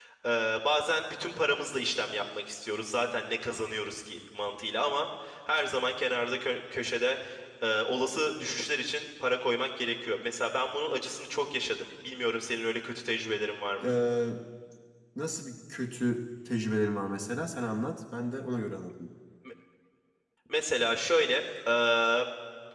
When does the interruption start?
none

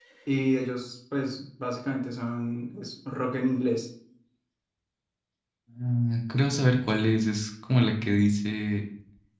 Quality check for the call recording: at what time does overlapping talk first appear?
none

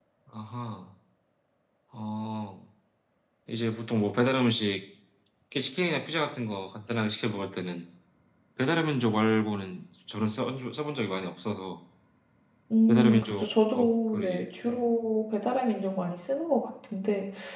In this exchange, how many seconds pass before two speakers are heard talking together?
12.9 s

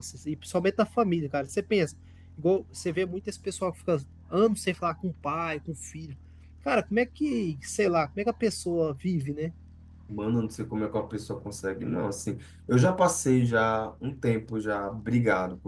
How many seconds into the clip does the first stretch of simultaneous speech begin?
none

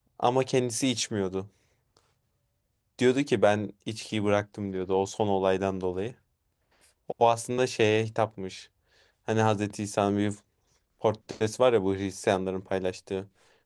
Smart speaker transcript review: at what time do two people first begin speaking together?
none

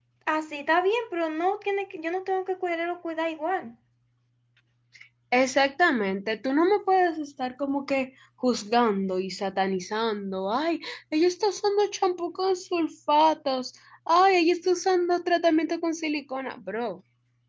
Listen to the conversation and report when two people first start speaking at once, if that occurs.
none

